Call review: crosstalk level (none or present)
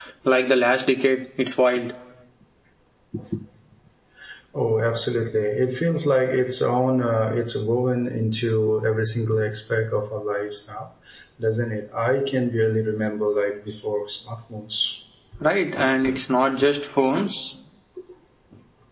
none